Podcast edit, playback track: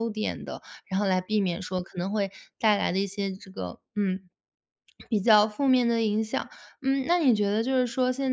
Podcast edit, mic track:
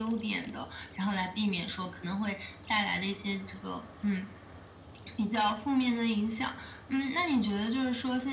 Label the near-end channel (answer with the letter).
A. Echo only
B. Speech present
A